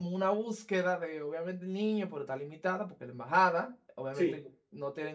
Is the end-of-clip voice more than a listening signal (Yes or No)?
No